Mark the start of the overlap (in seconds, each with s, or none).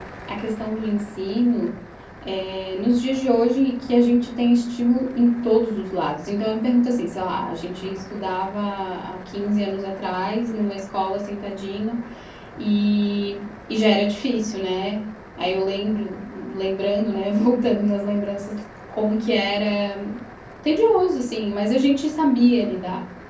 none